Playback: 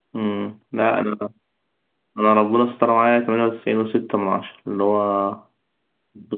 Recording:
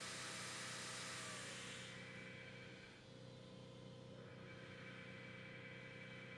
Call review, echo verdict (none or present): none